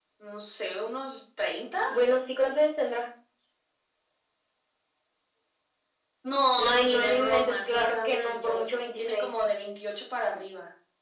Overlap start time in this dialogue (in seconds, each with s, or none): 6.7 s